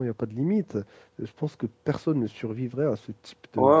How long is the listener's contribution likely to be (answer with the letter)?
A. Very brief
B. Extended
B